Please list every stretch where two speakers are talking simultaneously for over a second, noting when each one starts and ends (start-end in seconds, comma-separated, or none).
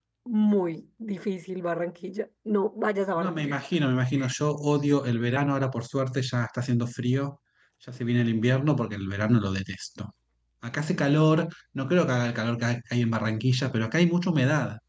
none